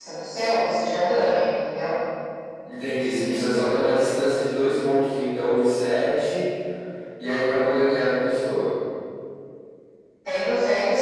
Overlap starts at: none

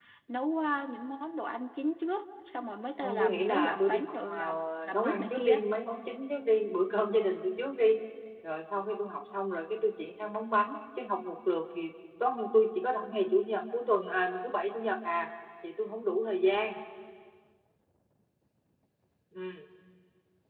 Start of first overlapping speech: 3.0 s

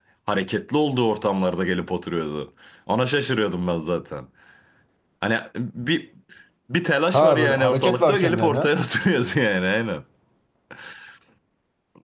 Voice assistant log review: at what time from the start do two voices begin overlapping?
7.1 s

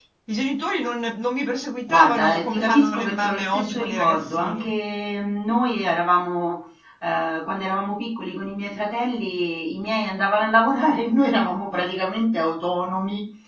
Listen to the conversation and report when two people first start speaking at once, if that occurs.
1.9 s

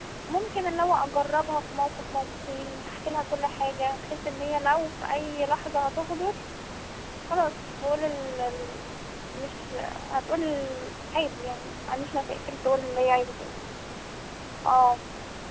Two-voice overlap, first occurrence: none

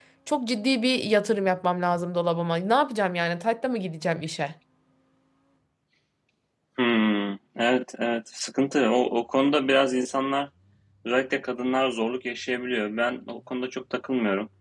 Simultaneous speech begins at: none

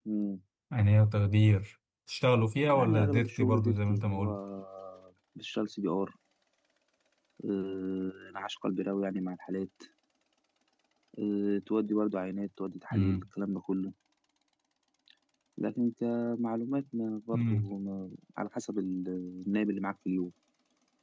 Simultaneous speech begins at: 2.7 s

